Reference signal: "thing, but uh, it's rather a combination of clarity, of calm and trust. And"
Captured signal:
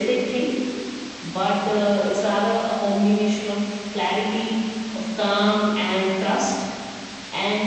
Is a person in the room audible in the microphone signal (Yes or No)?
No